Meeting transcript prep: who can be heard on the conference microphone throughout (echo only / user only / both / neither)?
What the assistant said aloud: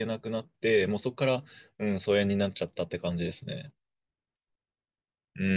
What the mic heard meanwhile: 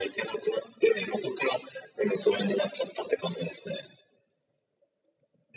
echo only